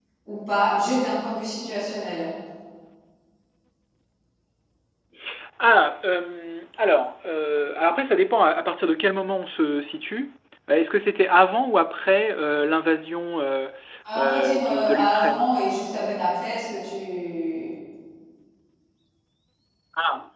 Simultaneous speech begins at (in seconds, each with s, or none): 14.2 s